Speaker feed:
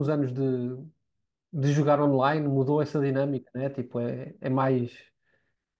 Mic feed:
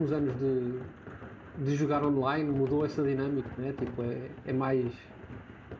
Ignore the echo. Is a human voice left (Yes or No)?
No